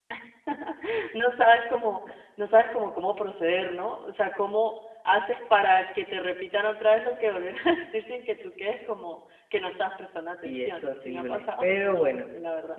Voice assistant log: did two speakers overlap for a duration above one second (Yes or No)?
Yes